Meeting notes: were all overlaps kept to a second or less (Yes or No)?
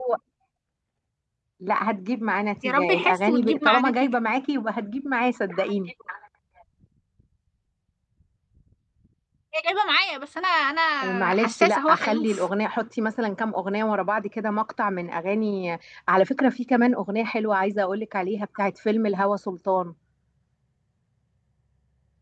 No